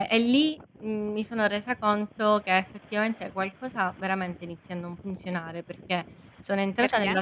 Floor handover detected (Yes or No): No